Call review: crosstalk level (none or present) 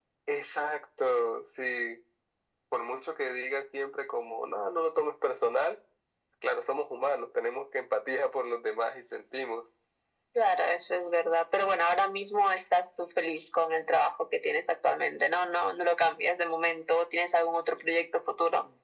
none